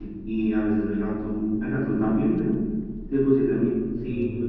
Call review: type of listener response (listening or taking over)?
listening